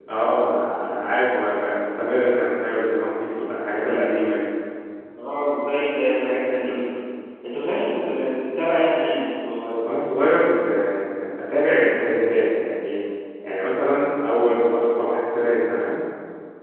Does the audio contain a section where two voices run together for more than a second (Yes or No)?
No